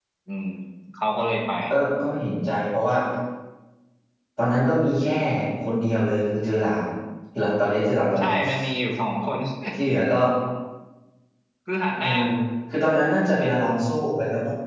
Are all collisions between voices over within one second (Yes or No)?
Yes